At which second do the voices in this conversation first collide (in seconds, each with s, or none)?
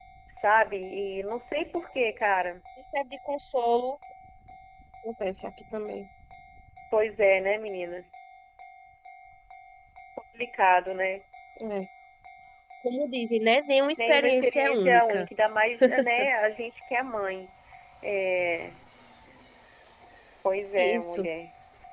14.0 s